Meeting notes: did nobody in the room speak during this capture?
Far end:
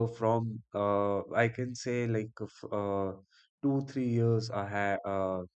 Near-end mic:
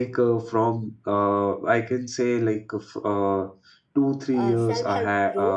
No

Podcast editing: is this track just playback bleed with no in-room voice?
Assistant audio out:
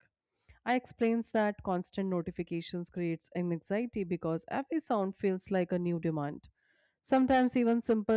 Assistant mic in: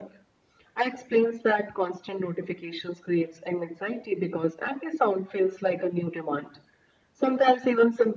Yes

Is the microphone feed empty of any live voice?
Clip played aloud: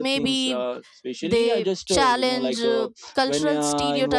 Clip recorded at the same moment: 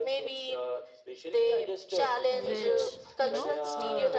No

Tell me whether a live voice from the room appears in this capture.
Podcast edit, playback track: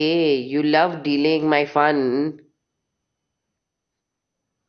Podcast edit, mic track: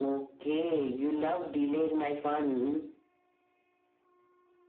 No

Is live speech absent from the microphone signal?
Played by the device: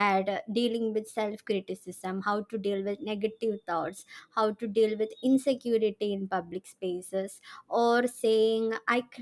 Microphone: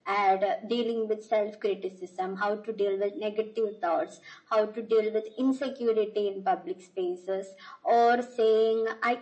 Yes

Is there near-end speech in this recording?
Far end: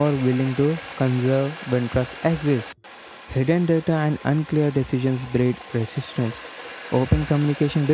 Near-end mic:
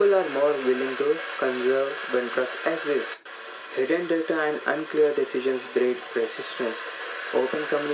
No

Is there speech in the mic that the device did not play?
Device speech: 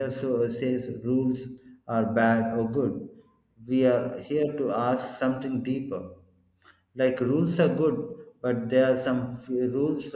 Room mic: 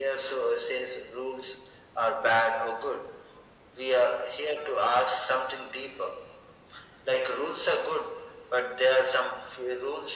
No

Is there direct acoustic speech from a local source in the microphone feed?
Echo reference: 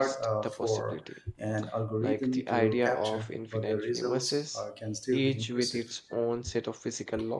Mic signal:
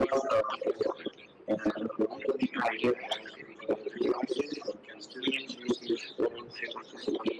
No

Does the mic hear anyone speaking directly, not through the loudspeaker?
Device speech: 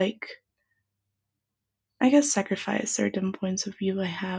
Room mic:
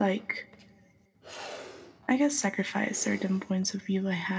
No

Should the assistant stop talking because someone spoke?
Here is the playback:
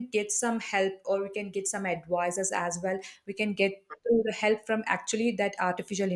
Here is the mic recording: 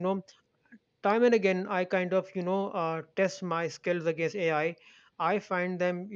Yes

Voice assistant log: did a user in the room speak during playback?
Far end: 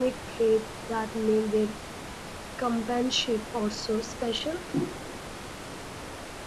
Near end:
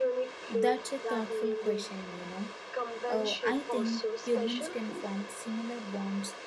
Yes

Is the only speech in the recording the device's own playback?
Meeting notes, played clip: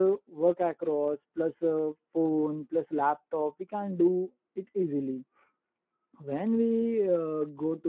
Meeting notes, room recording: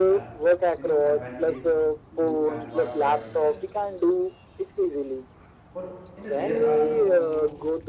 No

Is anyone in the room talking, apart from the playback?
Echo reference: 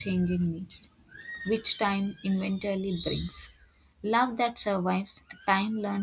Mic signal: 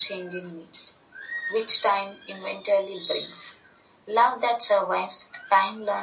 No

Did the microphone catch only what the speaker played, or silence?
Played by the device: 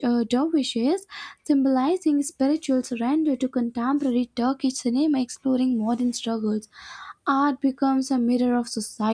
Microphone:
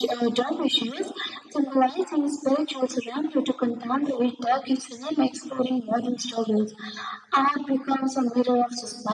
Yes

